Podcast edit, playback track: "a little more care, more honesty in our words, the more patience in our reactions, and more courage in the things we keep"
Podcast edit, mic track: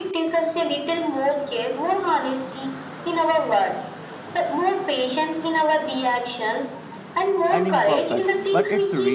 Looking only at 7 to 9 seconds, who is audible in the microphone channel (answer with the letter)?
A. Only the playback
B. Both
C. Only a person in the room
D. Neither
B